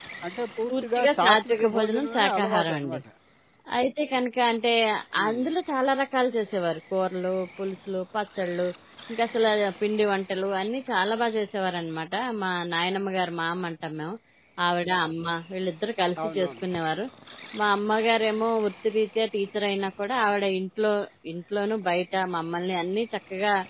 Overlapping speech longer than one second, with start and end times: 0.7-3.0

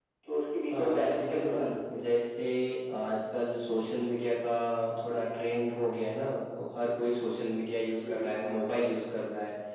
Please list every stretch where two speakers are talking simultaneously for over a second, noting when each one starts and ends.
0.7-2.0

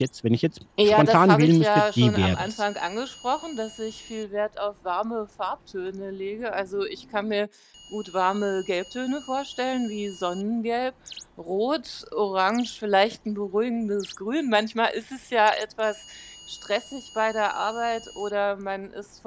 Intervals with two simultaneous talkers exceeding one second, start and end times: 0.8-2.5

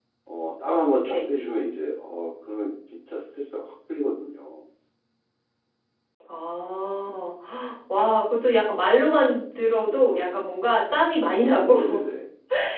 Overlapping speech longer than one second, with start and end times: none

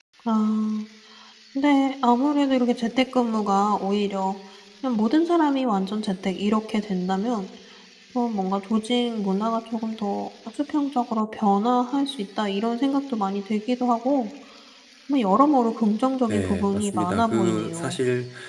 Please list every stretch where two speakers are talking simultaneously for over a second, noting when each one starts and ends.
16.3-18.0

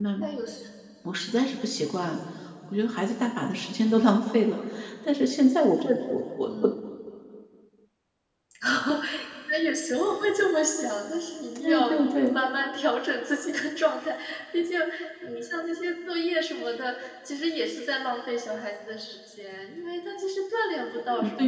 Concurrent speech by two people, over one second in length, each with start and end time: none

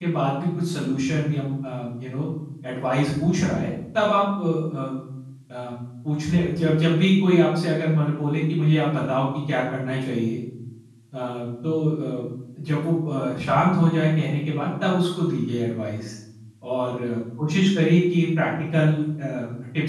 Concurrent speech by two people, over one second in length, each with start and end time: none

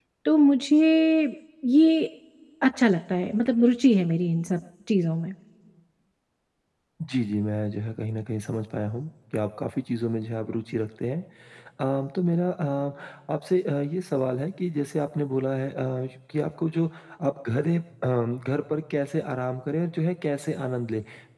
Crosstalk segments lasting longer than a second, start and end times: none

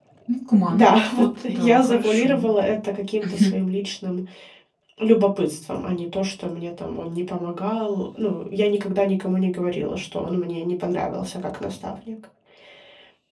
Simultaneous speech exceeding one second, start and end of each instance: 0.7-2.4

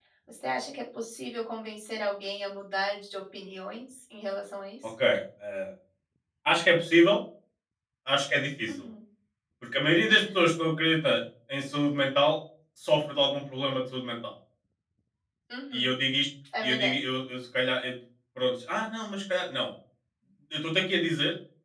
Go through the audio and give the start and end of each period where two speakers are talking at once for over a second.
none

